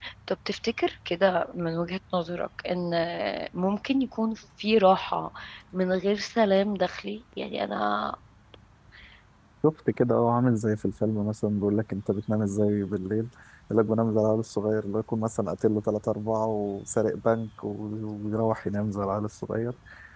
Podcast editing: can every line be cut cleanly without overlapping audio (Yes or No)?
Yes